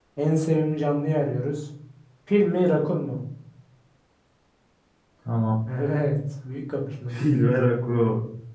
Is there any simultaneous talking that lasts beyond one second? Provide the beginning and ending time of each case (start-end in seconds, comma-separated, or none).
none